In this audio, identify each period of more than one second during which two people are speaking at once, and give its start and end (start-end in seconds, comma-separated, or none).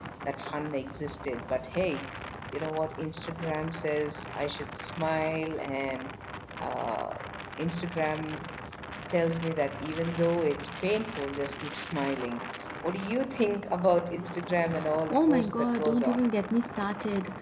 15.1-16.3